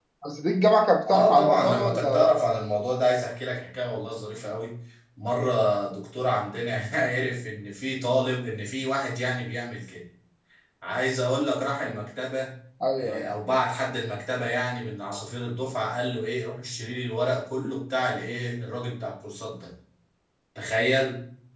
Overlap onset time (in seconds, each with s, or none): 1.1 s